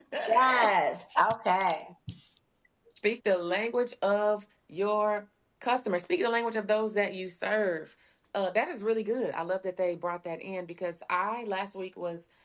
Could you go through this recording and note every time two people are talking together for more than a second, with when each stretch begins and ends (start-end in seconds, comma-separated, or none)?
none